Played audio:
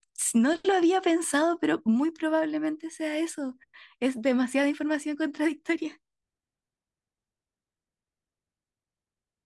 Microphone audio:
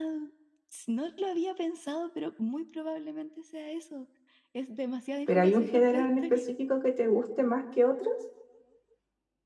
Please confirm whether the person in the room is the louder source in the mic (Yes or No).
Yes